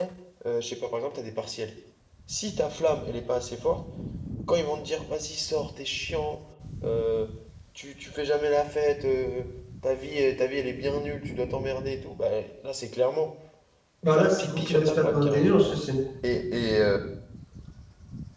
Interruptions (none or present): present